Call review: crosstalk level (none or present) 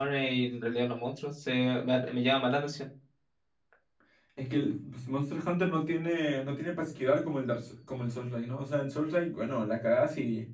none